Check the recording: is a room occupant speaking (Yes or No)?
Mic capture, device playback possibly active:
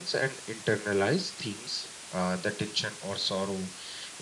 No